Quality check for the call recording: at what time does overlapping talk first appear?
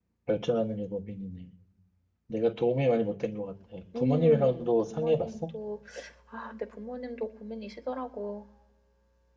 3.9 s

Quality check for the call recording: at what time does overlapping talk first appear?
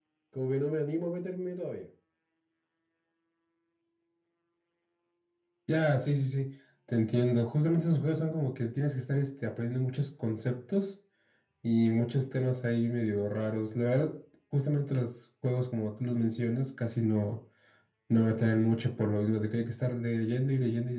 none

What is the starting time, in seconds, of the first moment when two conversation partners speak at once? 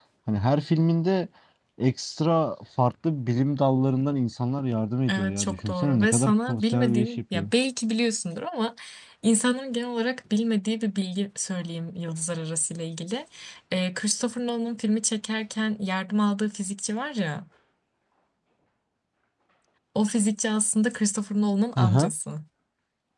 5.1 s

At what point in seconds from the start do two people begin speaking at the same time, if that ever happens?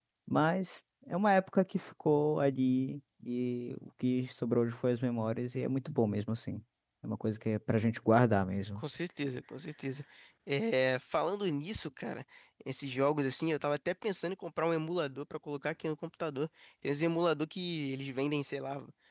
none

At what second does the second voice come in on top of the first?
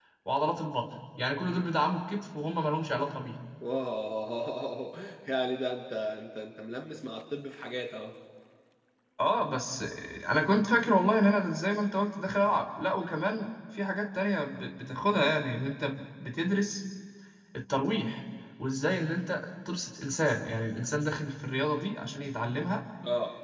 none

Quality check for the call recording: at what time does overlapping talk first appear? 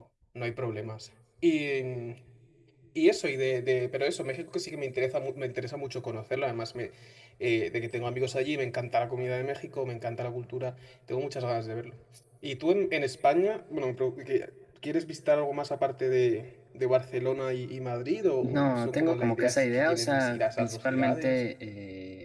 18.4 s

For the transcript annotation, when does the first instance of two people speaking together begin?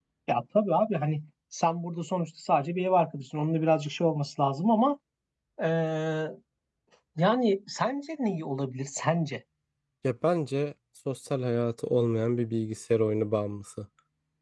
none

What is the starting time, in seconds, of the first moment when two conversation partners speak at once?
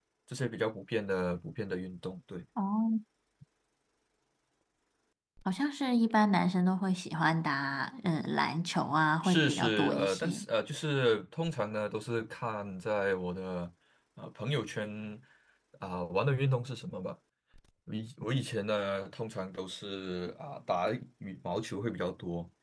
9.2 s

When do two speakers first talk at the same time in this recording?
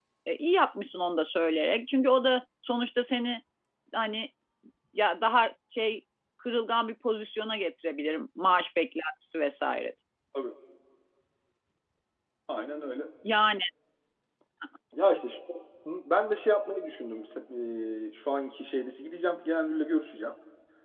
none

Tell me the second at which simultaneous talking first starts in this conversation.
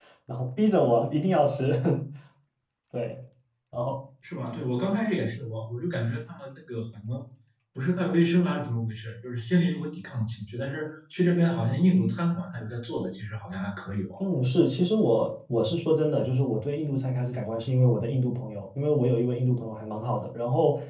none

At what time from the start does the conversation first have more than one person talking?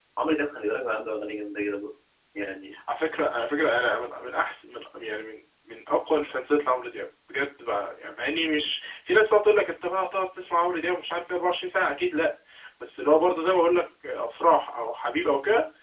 none

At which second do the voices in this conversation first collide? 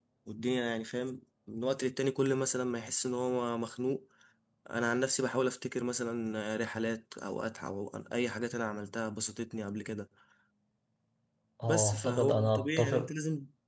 11.7 s

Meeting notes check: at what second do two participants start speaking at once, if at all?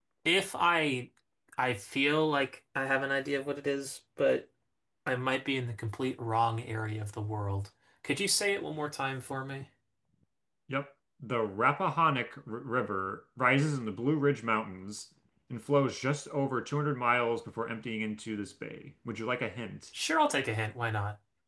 none

